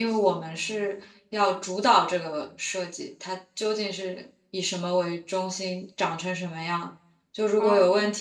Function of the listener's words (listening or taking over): listening